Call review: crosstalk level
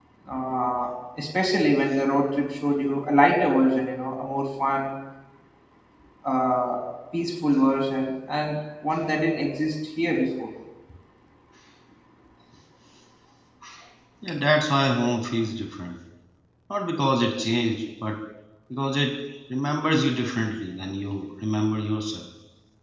none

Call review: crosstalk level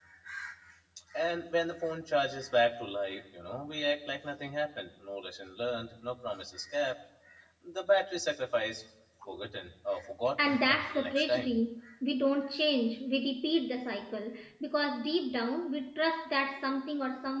present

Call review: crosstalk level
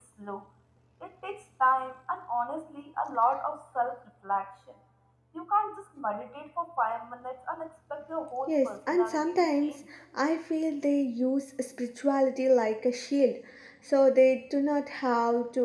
present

